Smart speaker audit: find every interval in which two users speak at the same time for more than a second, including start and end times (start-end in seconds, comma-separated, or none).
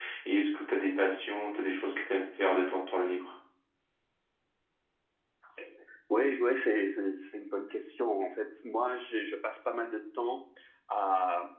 none